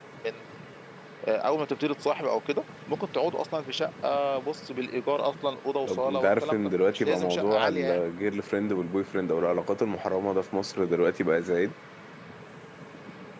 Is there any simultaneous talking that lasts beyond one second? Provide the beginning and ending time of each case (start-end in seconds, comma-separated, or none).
5.8-8.0